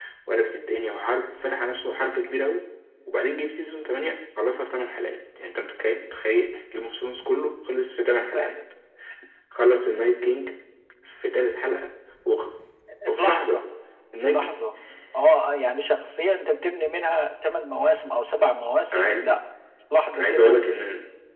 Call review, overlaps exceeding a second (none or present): none